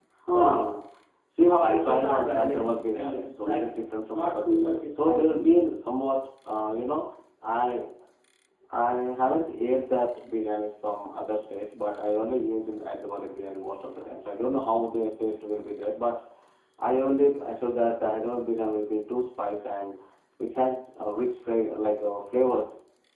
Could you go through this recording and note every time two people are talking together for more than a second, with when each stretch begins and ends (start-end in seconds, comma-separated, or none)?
1.4-5.5